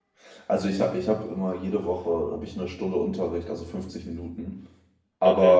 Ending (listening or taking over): listening